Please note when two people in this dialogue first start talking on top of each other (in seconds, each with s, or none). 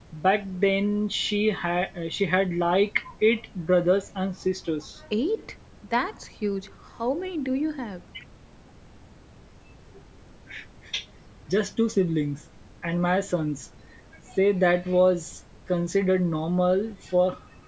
none